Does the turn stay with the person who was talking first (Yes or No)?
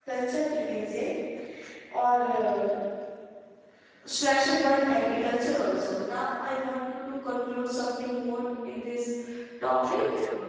No